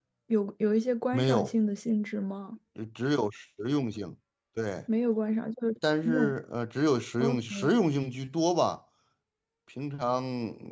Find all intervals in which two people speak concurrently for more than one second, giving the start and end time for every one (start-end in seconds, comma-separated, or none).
none